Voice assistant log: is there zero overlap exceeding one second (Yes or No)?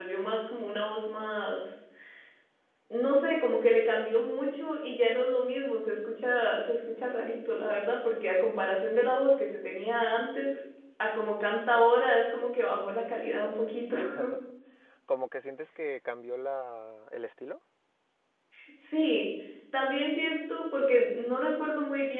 Yes